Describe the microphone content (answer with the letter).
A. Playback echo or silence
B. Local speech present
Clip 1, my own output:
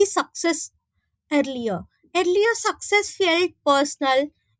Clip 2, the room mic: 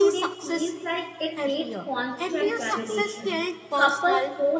B